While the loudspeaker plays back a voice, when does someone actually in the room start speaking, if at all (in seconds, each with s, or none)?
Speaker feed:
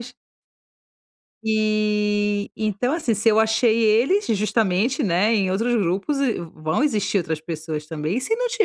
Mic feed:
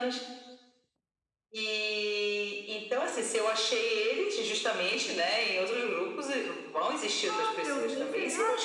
7.3 s